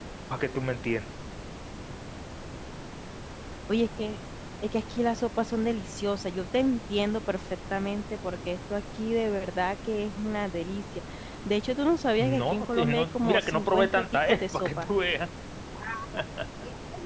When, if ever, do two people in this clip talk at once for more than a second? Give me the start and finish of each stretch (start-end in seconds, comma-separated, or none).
12.2-14.9